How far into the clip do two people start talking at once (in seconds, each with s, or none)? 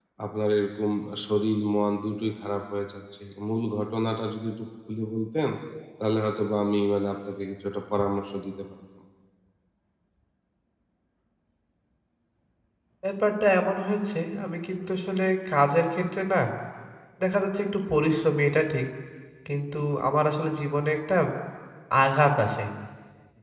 none